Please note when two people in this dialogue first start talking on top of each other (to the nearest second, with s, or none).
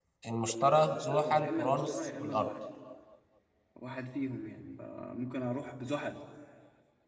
1 s